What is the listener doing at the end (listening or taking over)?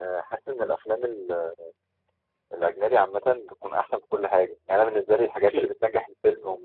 listening